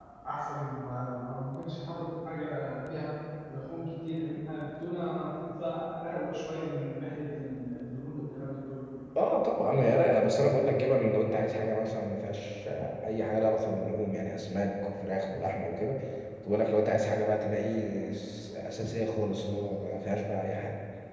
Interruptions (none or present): none